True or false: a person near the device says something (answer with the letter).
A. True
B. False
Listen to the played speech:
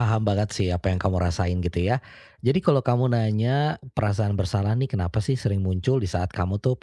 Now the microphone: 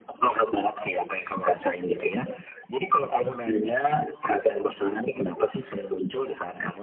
B